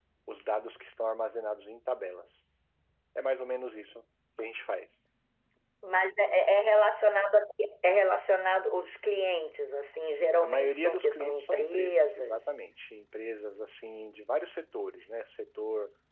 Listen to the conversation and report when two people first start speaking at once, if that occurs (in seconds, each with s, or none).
10.4 s